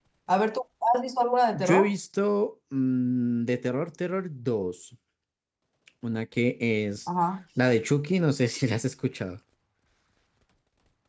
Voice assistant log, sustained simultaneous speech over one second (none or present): none